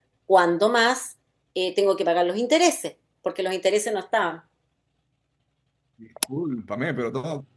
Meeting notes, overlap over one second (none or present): none